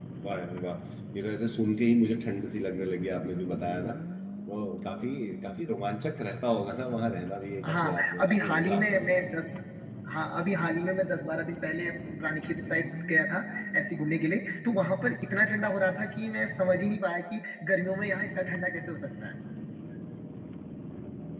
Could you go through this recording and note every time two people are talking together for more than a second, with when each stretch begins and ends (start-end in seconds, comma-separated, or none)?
7.7-9.3